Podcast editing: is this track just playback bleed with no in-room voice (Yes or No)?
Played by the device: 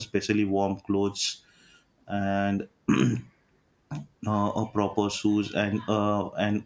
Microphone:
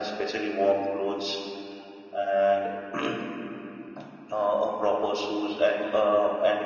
Yes